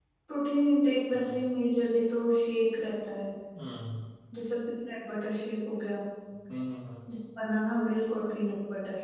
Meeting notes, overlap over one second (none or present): none